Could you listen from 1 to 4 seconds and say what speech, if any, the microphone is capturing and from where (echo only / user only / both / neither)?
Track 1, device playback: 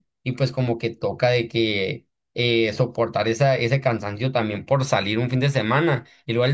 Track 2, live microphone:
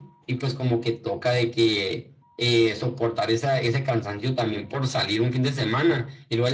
echo only